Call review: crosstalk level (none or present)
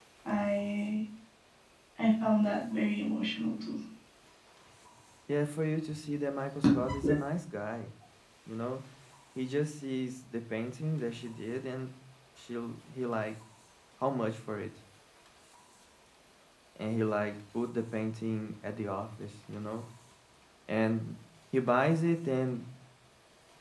none